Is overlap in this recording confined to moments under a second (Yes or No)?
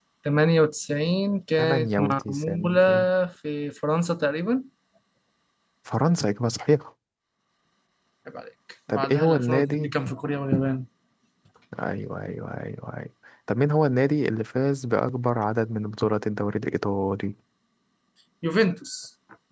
No